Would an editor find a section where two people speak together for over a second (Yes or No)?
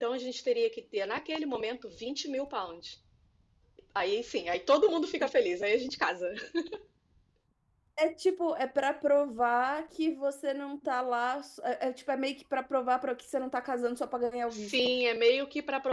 No